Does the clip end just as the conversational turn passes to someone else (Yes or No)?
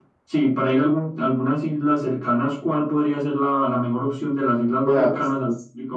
Yes